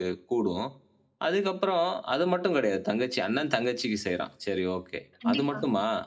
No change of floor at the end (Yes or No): Yes